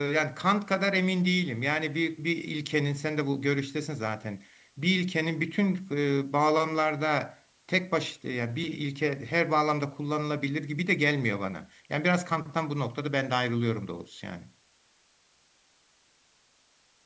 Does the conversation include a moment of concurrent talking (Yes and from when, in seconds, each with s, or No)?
No